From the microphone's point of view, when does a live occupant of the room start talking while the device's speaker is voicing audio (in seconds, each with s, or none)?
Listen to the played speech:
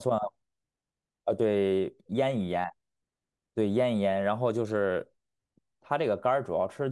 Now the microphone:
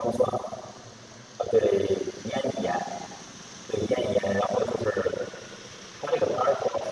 none